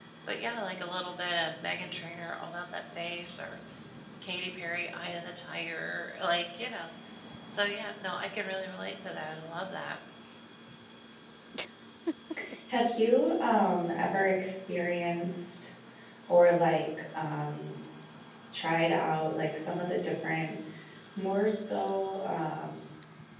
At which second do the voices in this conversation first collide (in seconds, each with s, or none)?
none